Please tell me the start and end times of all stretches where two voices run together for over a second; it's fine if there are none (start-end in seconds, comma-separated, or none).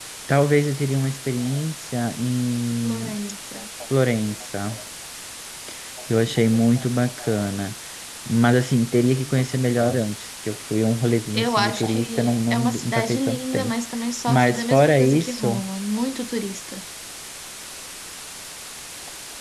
11.3-13.7, 14.3-15.6